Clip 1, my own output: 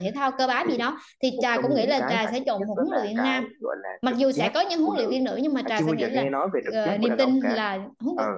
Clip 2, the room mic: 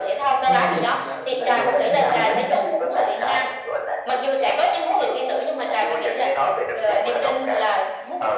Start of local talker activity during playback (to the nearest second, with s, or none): 0 s